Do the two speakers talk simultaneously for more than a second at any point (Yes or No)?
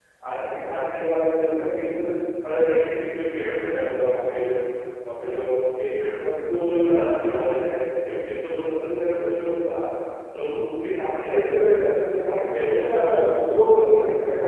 Yes